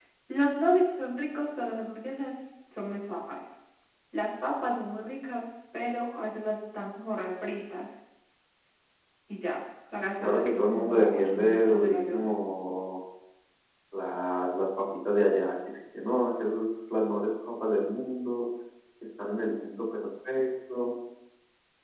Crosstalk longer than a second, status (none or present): present